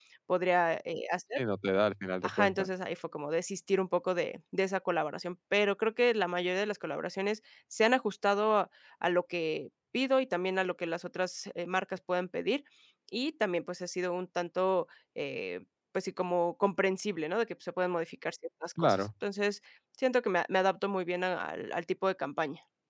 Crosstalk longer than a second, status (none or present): none